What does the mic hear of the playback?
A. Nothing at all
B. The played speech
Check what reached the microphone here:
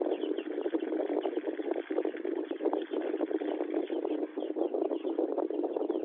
A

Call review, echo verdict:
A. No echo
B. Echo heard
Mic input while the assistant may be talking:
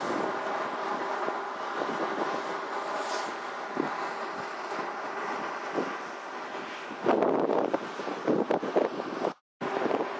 A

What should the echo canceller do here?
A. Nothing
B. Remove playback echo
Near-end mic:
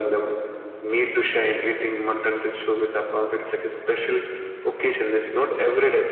B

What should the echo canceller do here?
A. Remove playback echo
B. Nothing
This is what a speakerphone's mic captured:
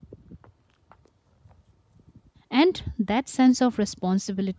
B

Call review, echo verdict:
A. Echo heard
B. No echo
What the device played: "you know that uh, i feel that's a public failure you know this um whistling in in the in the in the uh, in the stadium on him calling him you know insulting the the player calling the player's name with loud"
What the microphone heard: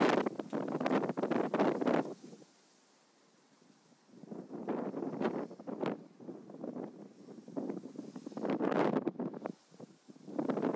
B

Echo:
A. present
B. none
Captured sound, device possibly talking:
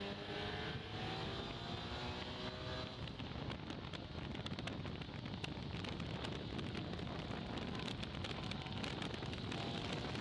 B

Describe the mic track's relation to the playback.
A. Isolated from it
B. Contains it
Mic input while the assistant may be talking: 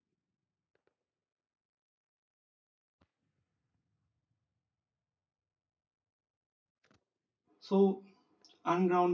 A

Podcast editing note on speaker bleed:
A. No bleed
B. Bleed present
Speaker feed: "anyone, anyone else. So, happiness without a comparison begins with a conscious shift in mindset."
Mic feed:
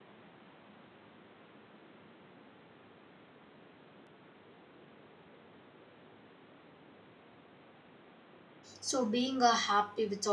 A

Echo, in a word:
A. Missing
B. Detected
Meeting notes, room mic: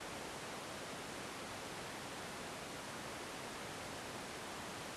A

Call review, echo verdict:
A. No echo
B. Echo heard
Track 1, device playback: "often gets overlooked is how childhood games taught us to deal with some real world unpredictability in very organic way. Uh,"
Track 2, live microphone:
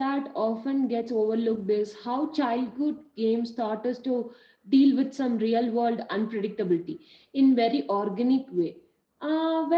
B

